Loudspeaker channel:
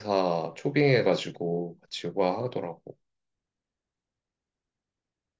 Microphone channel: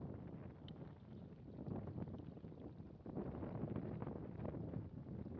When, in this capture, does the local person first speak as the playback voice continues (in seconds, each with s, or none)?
none